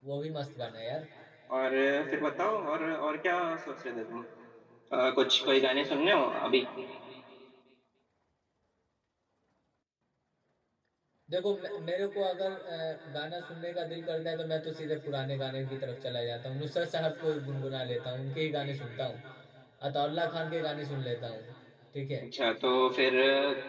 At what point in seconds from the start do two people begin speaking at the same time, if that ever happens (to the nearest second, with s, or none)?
none